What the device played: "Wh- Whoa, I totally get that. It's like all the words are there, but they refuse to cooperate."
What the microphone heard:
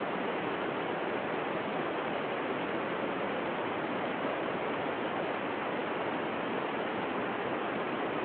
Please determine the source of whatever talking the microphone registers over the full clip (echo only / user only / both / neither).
neither